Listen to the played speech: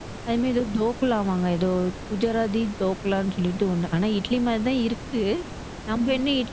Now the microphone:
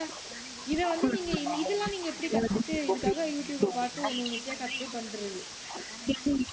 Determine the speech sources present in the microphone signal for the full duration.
both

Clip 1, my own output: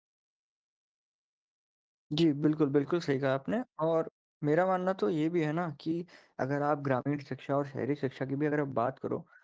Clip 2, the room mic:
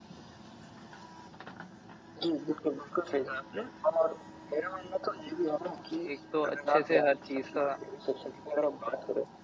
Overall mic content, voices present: both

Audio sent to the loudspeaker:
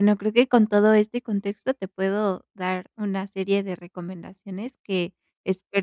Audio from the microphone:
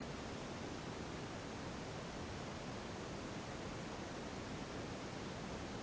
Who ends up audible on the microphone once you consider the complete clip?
neither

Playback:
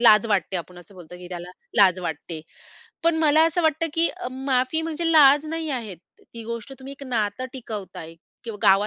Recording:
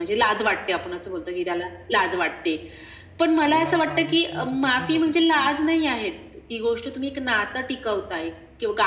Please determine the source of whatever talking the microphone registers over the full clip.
both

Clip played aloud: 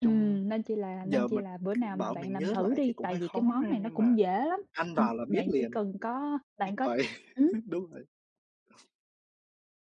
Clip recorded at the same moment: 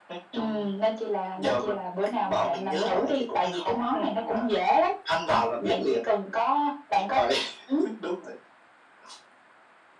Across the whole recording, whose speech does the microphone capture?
echo only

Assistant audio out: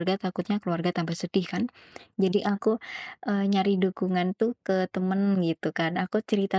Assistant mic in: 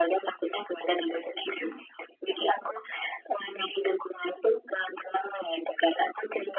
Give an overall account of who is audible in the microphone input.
echo only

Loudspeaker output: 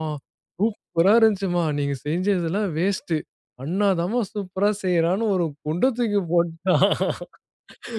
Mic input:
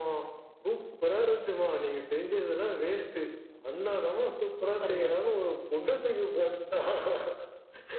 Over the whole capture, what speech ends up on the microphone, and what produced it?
both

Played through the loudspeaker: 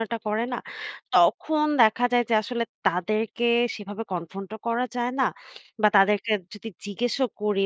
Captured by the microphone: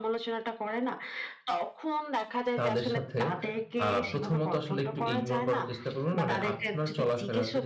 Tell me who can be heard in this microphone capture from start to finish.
both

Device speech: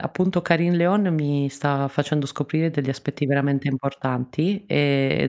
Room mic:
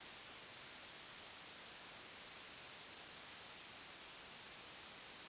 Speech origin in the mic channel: neither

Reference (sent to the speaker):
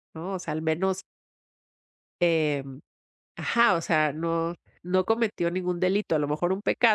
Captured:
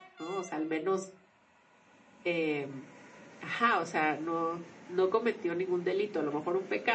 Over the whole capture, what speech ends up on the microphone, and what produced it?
echo only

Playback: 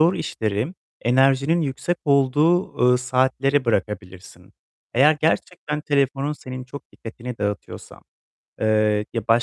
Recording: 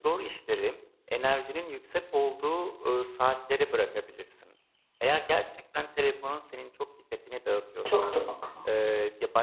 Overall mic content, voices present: both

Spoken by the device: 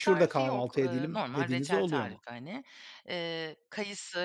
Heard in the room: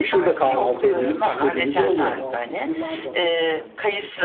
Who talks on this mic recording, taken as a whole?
both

